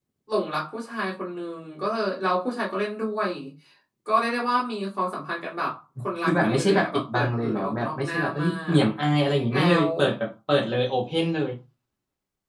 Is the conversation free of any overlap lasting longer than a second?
No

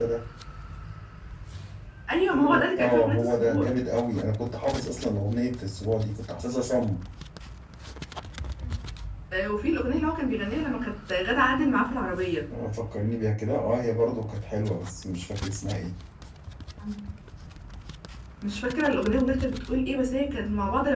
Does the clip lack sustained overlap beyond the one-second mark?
No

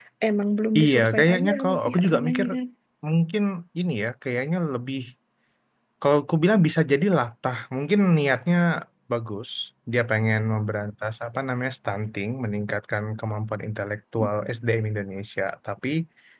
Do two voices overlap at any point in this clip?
Yes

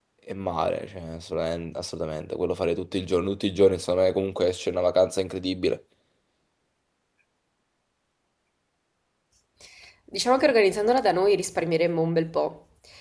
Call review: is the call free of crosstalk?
Yes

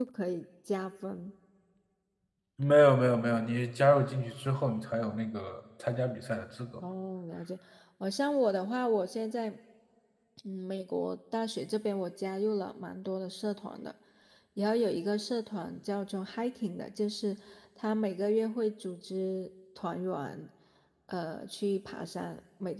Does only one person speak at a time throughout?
Yes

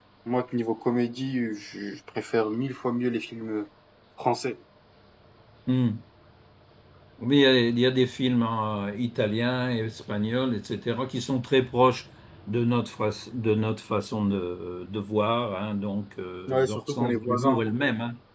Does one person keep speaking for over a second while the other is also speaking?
Yes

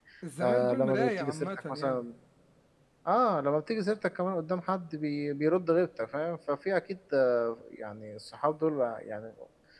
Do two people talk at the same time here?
Yes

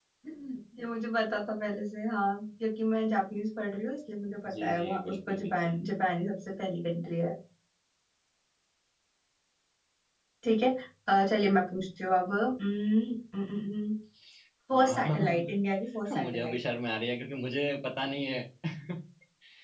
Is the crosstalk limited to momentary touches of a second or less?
No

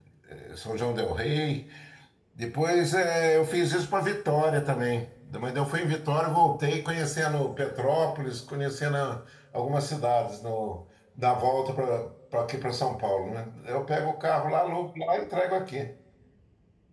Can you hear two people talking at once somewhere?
No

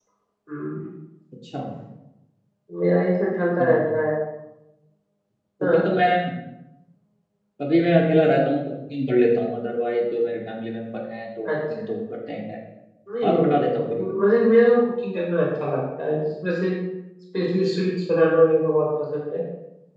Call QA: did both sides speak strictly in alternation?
No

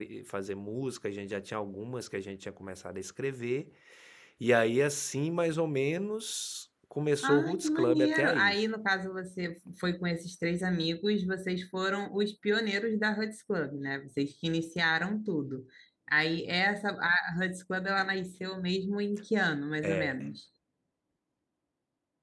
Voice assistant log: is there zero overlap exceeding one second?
No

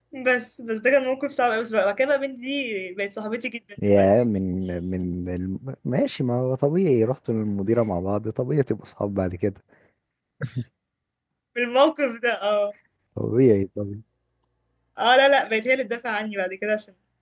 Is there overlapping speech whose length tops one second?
No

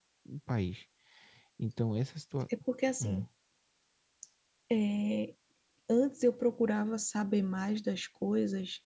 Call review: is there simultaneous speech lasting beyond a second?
No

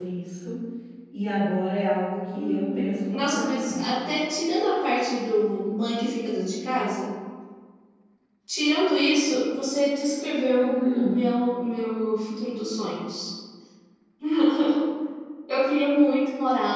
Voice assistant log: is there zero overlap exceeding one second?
No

